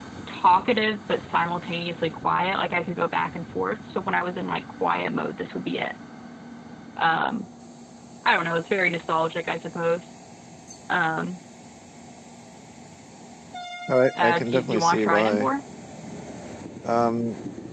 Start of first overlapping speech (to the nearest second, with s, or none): 14 s